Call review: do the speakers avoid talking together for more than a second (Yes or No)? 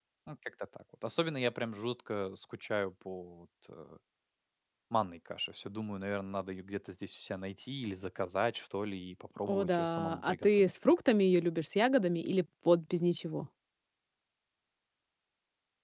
No